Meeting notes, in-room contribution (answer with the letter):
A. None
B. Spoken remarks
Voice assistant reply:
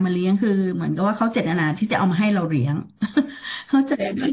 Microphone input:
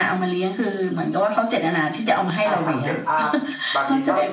B